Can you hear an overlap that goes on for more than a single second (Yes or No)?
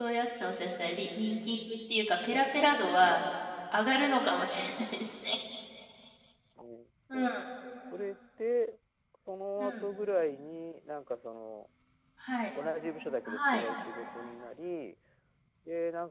No